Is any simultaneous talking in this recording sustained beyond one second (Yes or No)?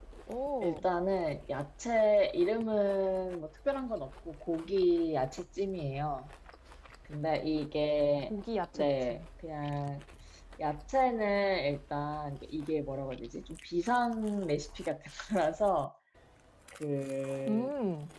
No